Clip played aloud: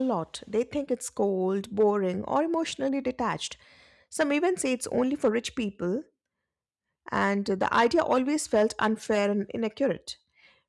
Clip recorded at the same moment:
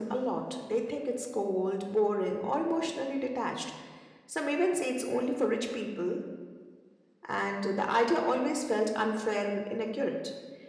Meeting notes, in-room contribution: none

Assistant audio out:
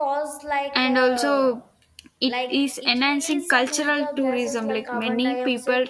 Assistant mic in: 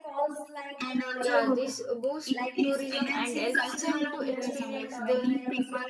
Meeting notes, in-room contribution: present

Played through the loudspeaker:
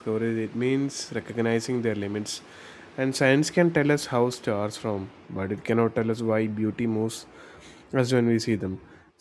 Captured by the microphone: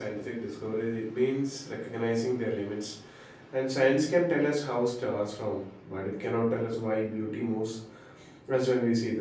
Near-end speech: none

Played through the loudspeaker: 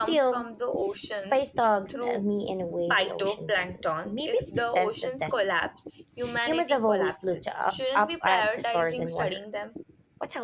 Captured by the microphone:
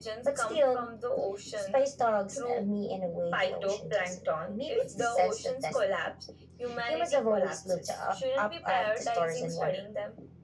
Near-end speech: none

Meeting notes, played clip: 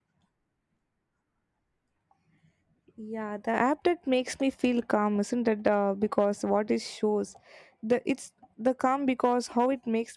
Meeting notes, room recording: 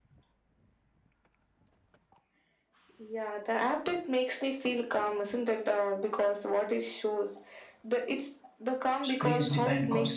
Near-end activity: present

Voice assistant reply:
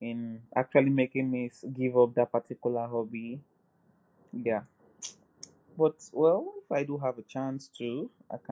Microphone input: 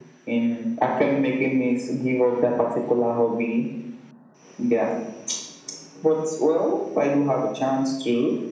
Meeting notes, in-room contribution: none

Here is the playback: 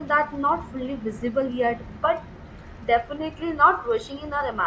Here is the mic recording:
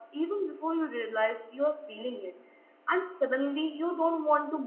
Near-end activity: present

